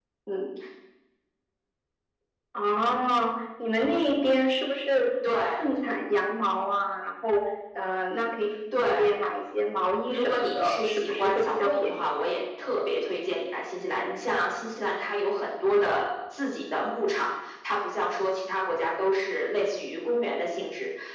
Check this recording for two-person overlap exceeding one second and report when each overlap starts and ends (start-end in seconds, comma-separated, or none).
10.1-11.9